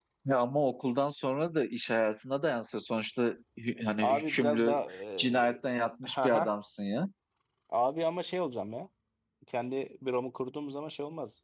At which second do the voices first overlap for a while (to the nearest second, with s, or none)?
4 s